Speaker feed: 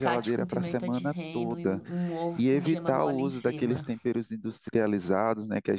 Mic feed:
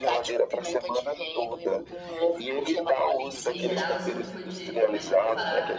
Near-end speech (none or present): present